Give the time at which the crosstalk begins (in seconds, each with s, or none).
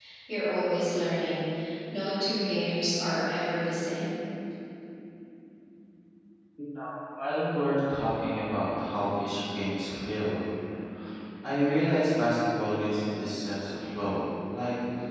none